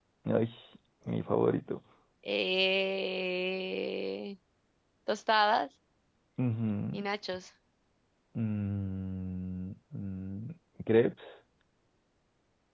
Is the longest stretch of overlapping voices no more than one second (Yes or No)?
Yes